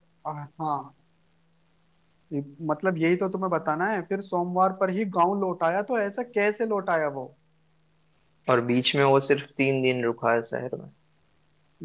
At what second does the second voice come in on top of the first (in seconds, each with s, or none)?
none